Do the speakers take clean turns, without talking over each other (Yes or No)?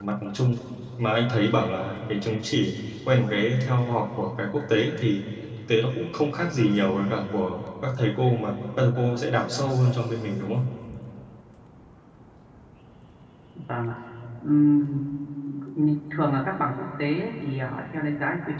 Yes